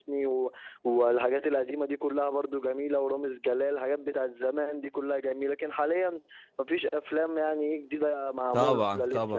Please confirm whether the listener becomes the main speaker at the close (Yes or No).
Yes